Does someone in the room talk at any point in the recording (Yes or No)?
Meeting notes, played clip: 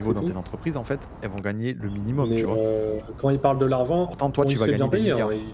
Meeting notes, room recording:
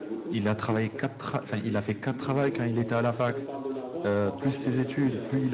Yes